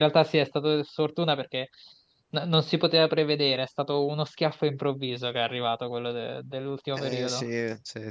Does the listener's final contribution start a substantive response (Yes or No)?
Yes